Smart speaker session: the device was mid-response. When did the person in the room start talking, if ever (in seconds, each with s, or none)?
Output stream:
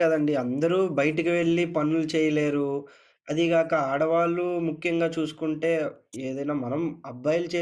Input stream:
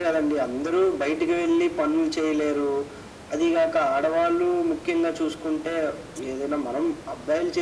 none